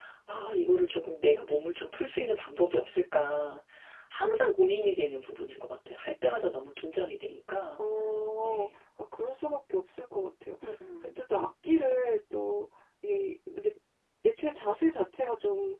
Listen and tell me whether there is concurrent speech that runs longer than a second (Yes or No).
No